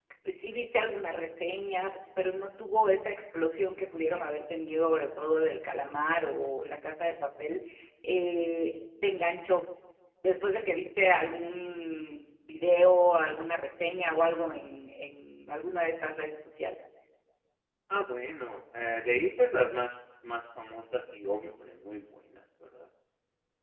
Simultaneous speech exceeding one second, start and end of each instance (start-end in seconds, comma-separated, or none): none